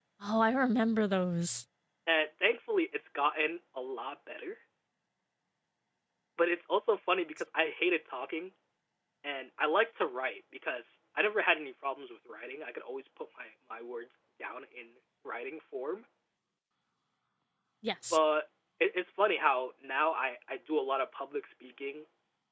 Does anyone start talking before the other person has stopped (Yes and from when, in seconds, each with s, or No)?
No